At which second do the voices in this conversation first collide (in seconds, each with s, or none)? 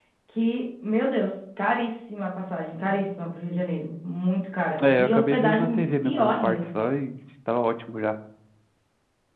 4.8 s